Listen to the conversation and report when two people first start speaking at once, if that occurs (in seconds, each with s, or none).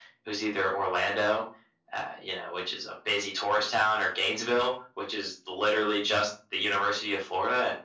none